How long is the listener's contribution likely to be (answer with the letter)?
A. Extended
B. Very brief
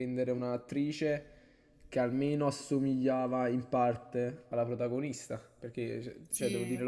B